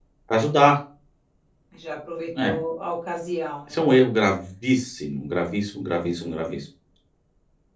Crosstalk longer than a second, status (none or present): none